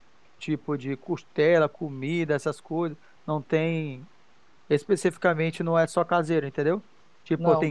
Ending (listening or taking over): taking over